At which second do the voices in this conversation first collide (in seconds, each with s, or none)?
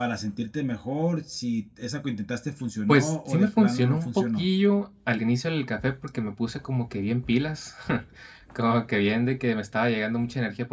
2.9 s